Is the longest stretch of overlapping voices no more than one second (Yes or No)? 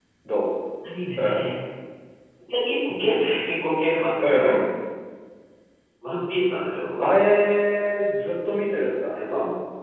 Yes